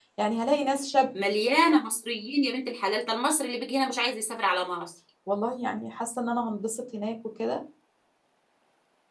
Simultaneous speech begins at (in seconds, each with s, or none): none